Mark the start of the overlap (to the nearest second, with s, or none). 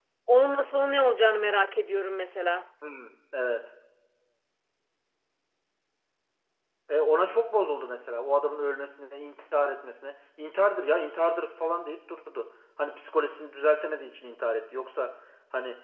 none